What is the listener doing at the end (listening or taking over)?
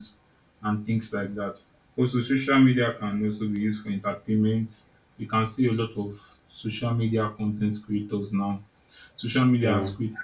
listening